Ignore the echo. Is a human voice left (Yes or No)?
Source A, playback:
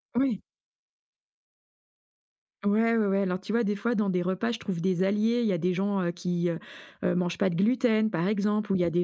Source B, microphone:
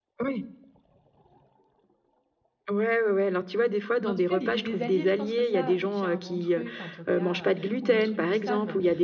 Yes